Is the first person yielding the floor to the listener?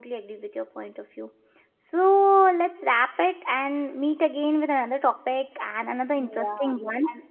Yes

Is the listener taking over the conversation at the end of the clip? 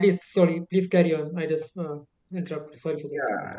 Yes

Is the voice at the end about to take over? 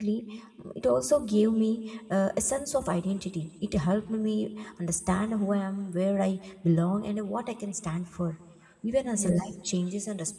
No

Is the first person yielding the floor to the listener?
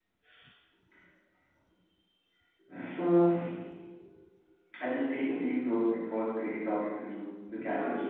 Yes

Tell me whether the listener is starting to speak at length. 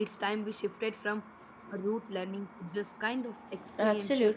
Yes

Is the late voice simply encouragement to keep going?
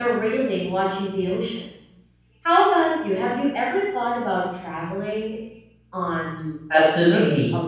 No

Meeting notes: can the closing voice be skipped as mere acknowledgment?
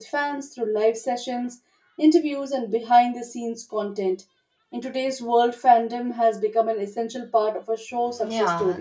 No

